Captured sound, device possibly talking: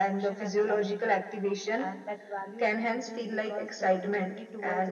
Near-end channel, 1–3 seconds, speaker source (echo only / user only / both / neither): echo only